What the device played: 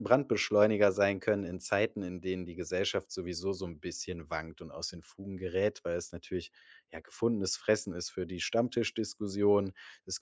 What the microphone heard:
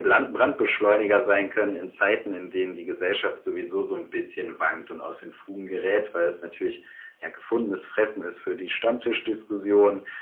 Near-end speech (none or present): none